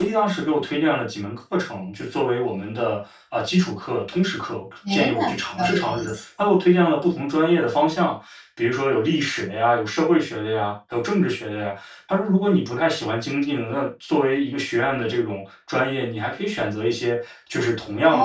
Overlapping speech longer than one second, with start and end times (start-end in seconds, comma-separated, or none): 4.9-6.1